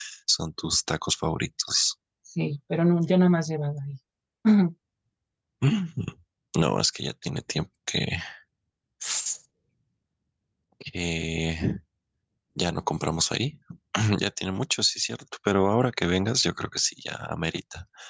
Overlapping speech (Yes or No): No